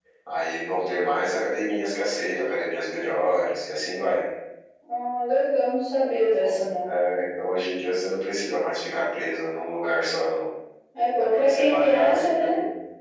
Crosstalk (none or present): present